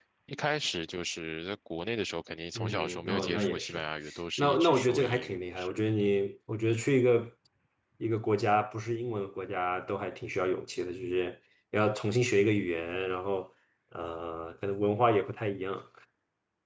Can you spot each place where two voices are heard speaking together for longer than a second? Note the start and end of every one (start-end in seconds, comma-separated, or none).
2.5-3.8, 4.4-5.8